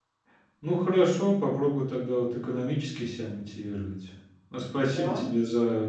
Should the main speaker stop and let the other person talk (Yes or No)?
No